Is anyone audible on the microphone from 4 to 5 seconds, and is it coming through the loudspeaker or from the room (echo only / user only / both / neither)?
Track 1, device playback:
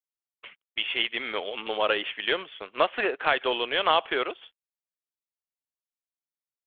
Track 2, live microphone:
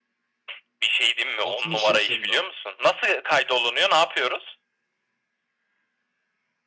echo only